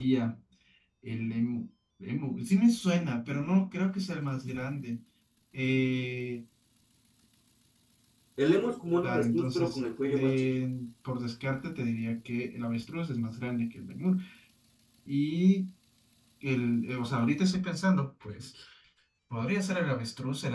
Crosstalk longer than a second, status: present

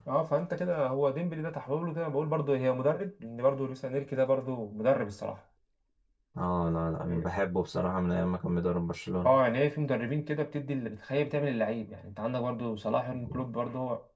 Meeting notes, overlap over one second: none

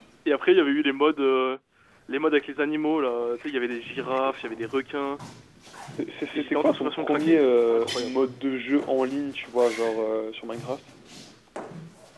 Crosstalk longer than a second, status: present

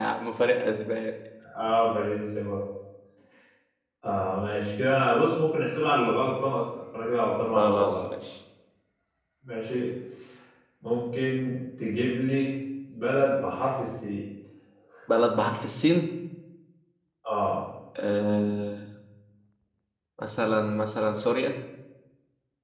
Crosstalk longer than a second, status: none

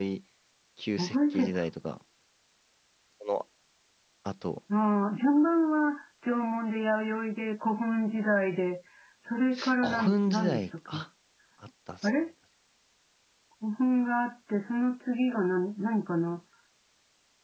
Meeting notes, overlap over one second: present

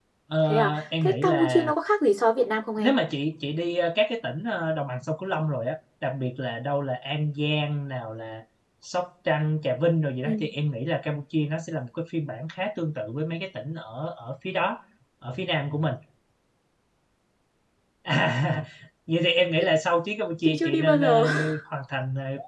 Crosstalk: present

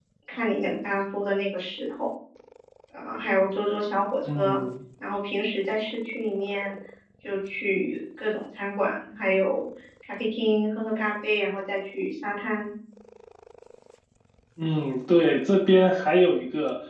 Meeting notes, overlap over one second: none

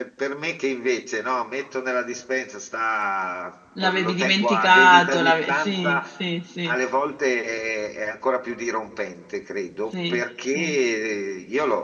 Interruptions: present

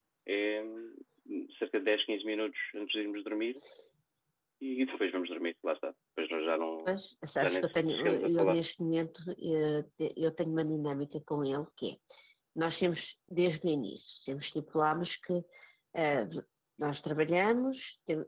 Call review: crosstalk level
present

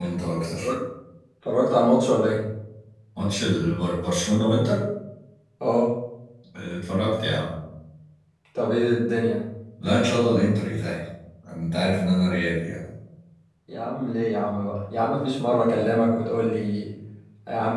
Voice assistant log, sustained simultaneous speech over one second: none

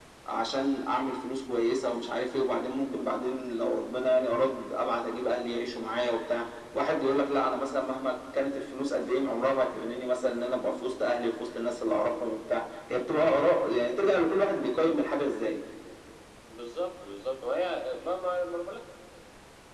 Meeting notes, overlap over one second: none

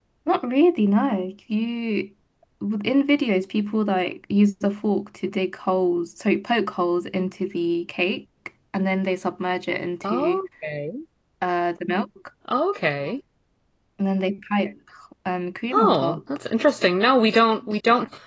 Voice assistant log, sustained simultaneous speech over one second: none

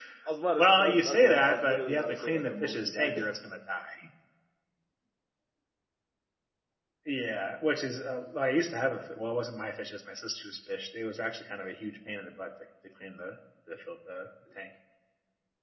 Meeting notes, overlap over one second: present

